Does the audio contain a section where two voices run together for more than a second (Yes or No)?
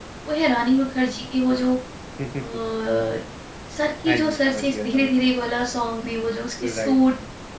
Yes